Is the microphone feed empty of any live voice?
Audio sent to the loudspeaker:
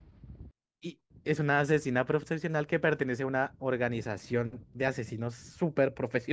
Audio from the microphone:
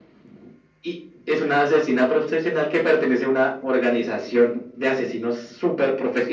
Yes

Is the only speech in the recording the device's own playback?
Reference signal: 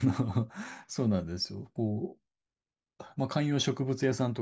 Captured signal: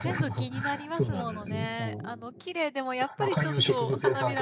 No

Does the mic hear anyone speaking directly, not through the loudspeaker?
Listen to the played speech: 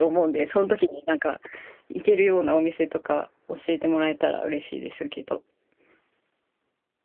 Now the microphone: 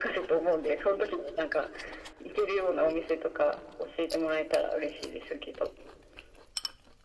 No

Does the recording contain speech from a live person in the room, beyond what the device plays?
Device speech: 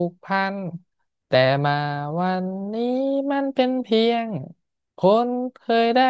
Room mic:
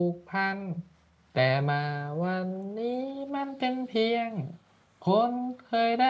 No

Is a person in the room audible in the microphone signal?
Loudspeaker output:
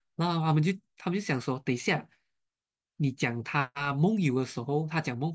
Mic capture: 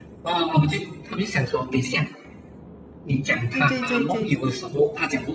Yes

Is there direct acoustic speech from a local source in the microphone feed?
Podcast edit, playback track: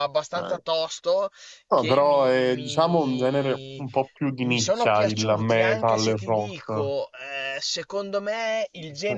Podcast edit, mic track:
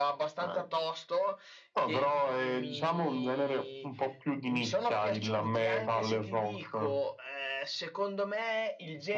No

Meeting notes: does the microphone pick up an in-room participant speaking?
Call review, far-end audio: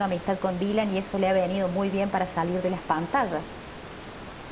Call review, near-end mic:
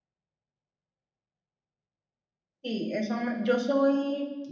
Yes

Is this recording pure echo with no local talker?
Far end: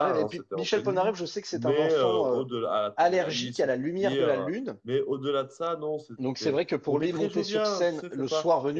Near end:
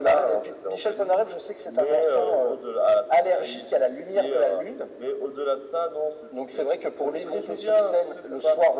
Yes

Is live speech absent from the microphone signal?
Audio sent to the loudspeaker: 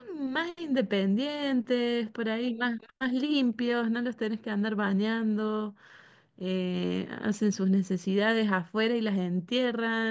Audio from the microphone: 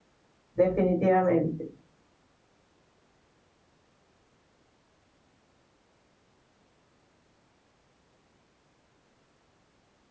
No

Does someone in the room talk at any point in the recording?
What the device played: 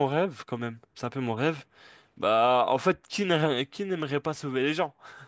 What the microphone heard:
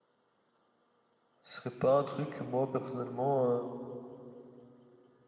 Yes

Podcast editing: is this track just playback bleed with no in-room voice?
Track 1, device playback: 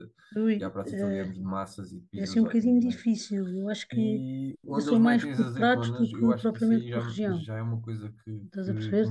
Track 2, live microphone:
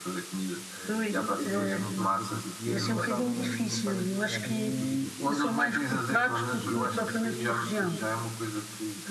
No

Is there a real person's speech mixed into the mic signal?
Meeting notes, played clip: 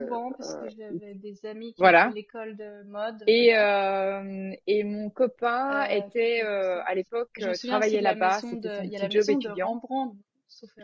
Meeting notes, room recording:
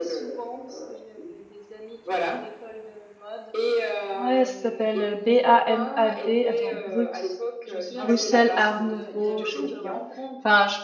Yes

